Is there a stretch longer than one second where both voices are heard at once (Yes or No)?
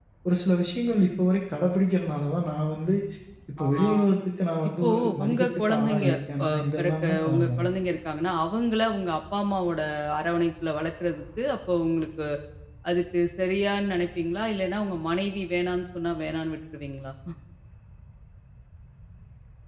Yes